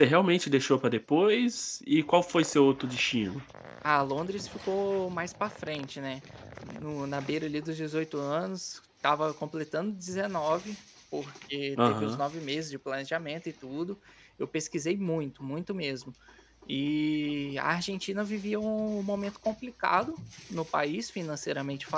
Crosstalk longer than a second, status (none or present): none